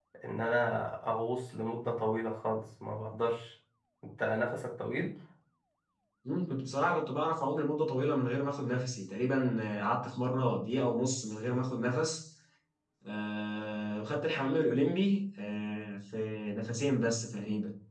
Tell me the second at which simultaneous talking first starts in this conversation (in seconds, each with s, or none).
none